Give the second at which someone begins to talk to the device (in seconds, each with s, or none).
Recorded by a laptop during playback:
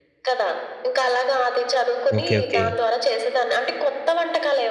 2.2 s